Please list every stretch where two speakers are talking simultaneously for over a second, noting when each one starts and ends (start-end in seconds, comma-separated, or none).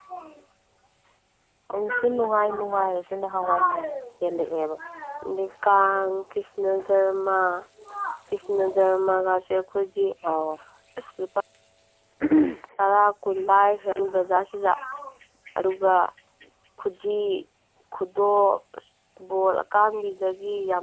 none